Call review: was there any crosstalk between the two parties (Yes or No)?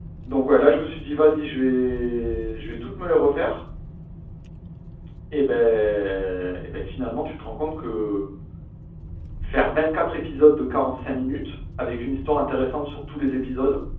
No